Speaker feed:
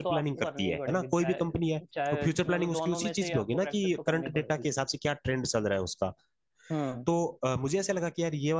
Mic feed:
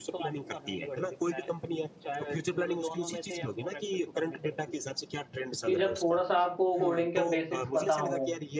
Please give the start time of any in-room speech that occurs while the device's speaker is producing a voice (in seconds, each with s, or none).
5.6 s